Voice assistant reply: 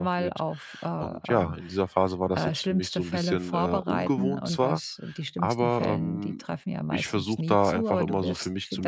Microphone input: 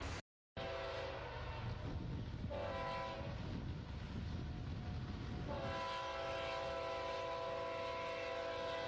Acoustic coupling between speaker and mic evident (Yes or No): No